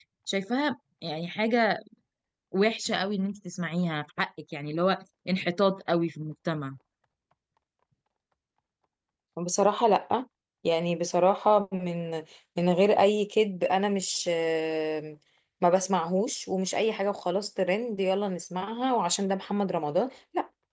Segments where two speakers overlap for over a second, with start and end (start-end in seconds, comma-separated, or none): none